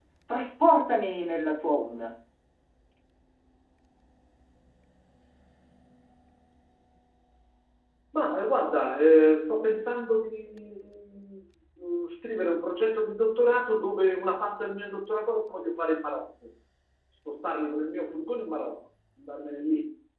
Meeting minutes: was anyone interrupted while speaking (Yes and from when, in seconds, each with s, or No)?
No